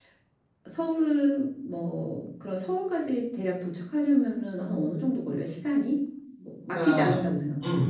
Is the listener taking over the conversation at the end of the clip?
Yes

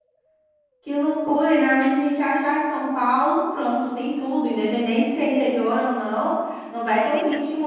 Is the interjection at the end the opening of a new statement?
No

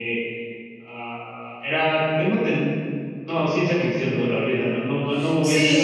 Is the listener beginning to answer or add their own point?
Yes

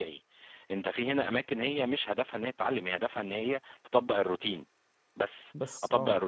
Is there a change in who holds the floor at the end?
No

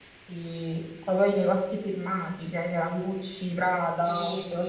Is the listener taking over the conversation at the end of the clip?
Yes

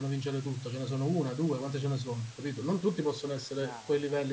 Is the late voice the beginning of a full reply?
No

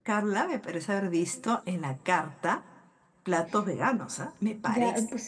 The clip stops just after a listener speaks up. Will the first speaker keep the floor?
No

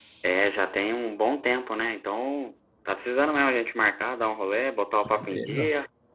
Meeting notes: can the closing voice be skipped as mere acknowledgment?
No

